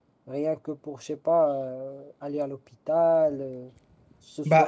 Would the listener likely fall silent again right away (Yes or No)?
No